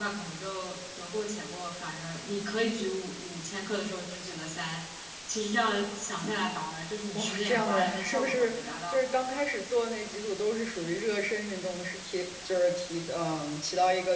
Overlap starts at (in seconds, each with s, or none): 7.1 s